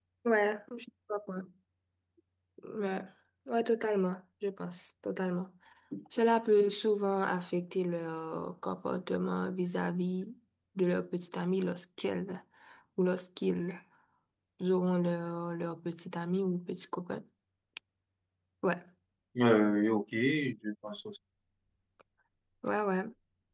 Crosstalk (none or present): none